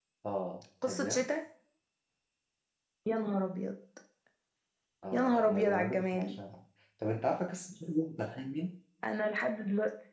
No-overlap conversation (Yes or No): No